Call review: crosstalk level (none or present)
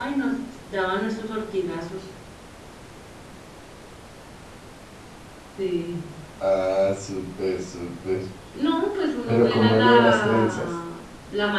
present